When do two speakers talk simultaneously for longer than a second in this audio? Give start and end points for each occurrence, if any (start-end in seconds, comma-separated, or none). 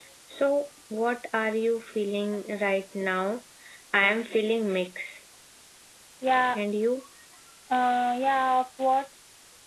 none